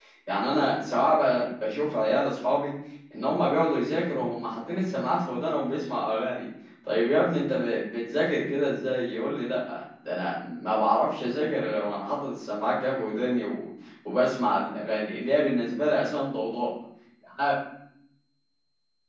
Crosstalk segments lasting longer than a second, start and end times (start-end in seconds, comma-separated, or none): none